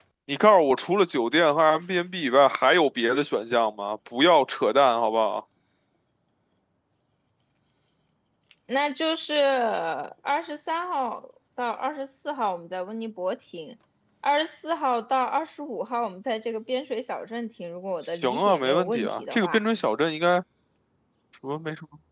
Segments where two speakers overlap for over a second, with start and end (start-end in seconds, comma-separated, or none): 18.0-19.6